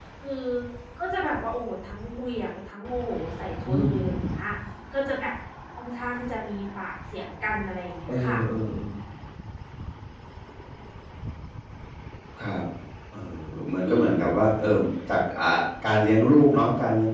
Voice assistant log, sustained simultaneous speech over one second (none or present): none